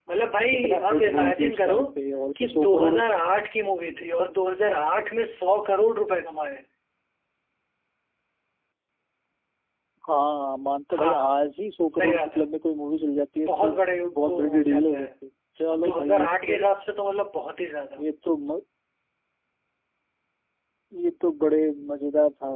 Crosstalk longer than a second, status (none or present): present